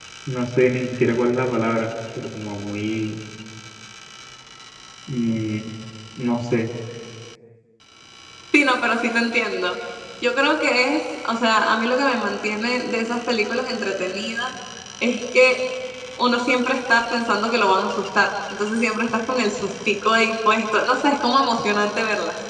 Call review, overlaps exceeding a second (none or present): none